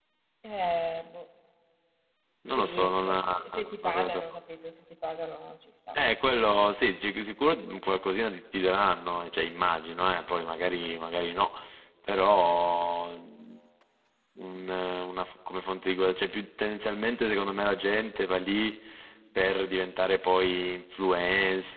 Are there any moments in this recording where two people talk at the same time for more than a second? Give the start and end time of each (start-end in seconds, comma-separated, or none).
2.6-4.2